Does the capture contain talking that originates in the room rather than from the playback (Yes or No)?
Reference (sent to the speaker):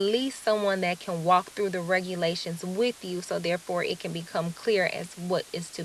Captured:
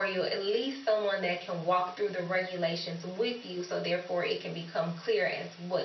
No